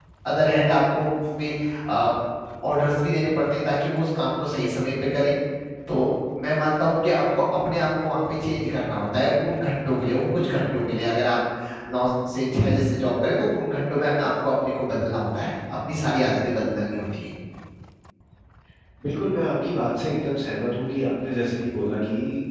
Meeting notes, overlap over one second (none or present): none